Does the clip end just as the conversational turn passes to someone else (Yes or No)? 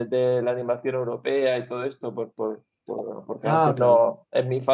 No